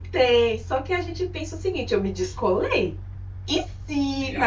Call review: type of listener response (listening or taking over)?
listening